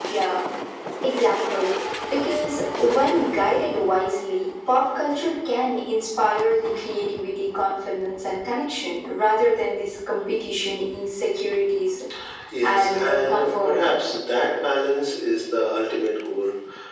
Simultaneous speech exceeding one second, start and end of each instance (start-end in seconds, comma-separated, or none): 12.6-14.0